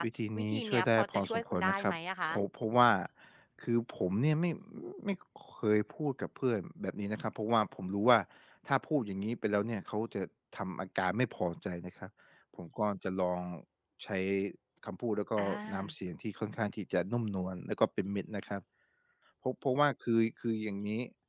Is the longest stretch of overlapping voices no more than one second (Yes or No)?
No